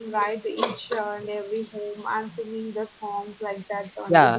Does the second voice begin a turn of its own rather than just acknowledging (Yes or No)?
Yes